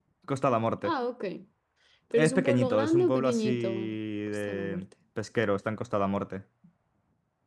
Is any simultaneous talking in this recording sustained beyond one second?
Yes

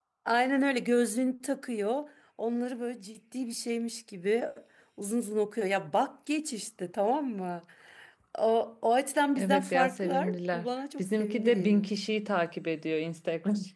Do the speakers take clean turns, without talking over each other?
No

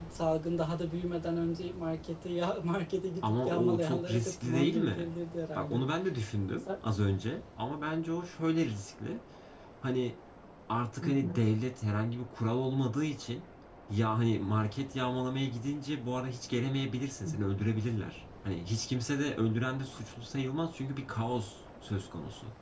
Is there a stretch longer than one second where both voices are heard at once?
Yes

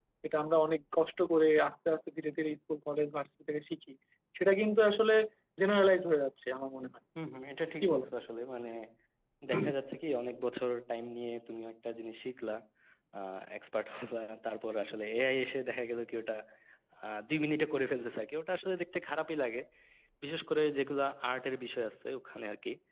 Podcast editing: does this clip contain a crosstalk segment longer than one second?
No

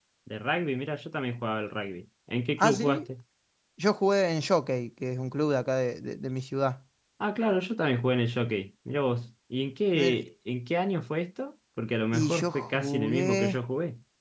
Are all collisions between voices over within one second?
No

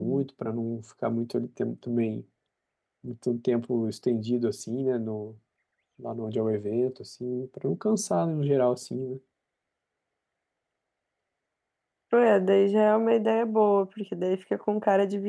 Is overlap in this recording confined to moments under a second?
Yes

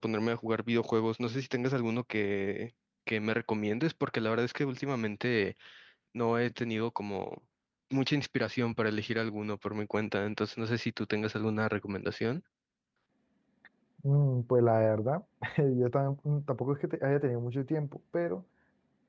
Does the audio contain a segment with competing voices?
No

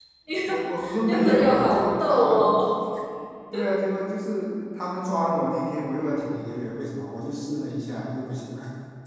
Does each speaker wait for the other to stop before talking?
No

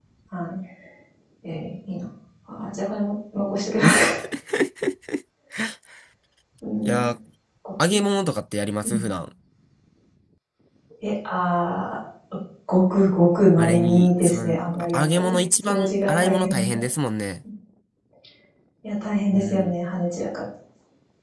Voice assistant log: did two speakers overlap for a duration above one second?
Yes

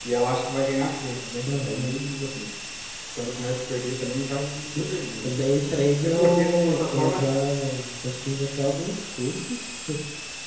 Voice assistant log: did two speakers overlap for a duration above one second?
Yes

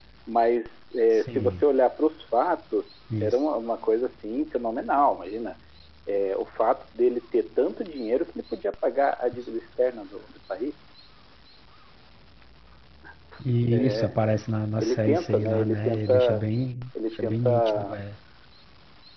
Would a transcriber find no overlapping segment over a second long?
No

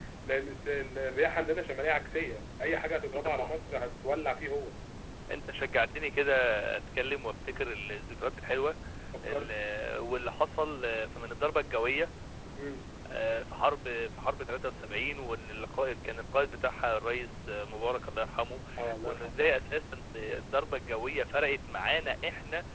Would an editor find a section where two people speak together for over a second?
No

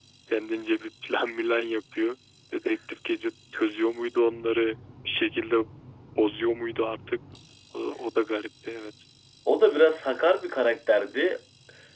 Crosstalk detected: No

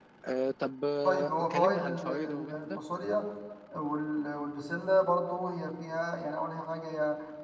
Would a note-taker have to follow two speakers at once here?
Yes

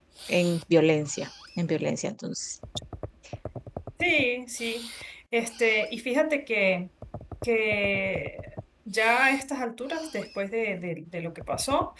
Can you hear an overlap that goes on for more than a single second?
No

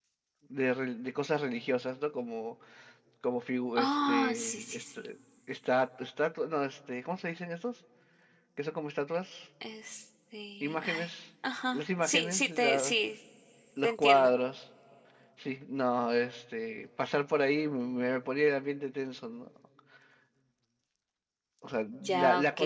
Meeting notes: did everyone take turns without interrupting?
No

